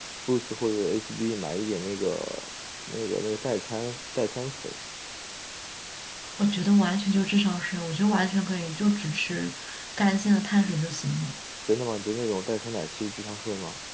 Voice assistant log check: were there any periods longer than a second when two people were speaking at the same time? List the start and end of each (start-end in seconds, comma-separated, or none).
none